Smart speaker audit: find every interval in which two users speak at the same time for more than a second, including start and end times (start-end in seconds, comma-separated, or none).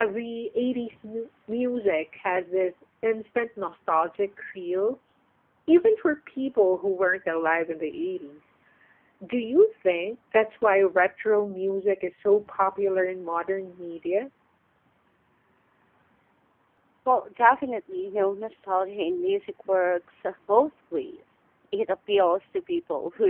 none